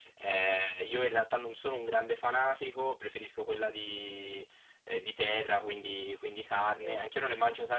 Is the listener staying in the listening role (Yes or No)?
Yes